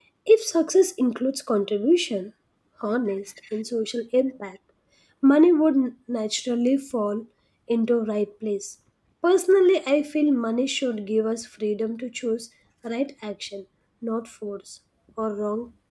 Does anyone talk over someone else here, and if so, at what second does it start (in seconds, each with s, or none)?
none